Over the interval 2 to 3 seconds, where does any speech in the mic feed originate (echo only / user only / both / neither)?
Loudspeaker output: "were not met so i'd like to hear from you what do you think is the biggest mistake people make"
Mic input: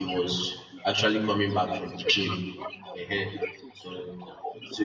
both